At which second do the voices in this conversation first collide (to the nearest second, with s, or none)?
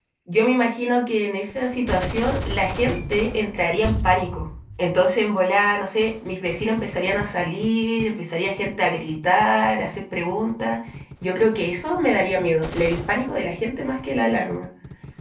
none